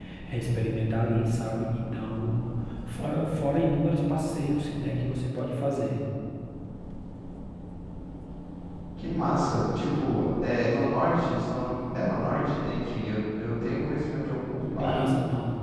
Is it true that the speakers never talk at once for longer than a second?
Yes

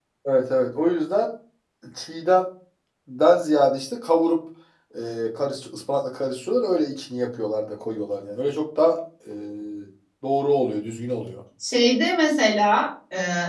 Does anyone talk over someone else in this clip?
No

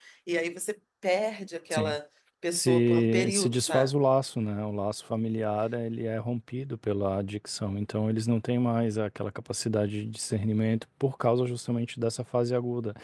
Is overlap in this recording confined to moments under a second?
No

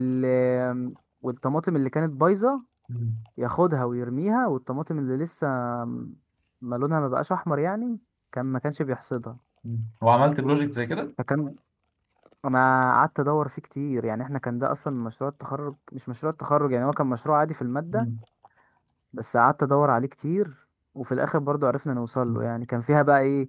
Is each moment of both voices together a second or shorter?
Yes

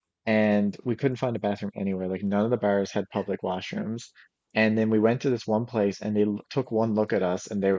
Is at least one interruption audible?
No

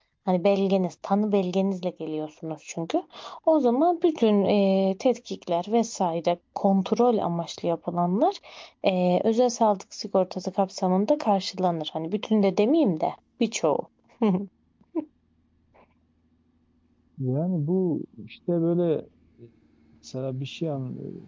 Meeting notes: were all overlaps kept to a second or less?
Yes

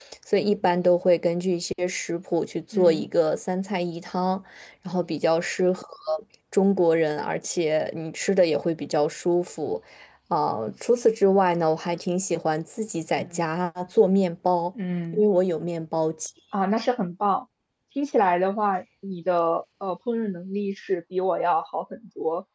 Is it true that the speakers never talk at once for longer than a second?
Yes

